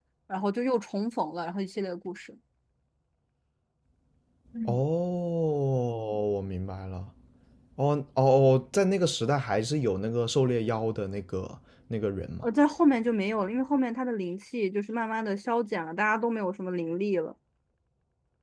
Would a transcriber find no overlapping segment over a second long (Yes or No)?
Yes